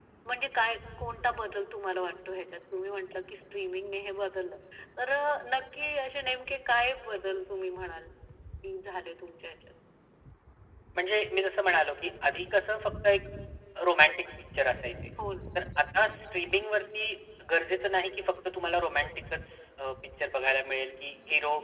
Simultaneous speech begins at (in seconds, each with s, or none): none